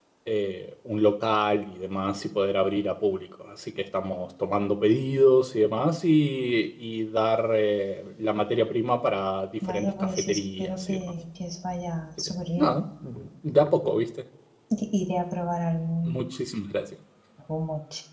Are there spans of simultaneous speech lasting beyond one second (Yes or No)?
Yes